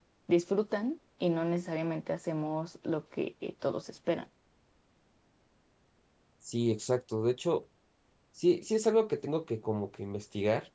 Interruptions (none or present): none